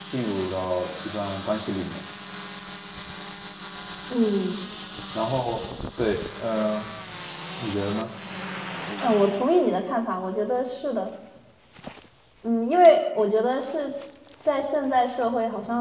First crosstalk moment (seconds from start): none

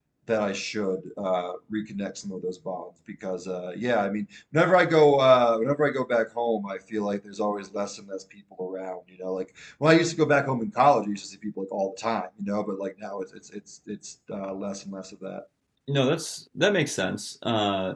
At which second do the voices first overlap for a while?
none

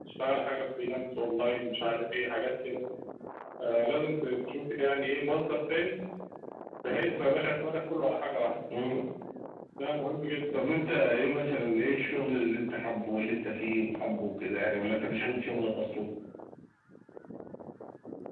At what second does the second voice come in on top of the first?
none

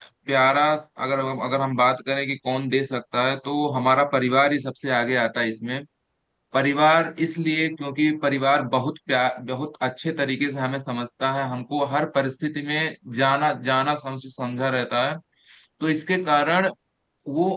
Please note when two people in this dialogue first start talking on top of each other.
none

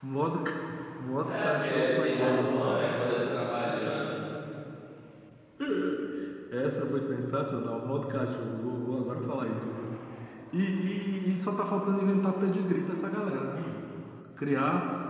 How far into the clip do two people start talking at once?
1.2 s

